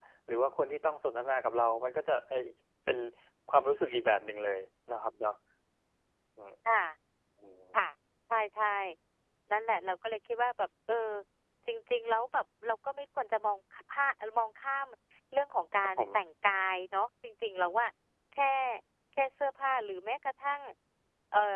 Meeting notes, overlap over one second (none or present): none